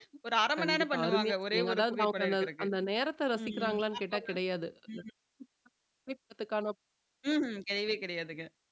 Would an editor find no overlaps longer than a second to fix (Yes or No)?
No